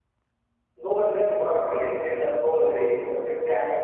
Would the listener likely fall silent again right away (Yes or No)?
No